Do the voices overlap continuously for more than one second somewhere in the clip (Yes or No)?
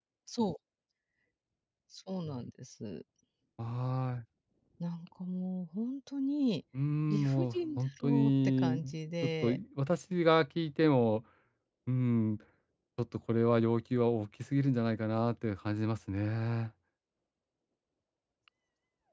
Yes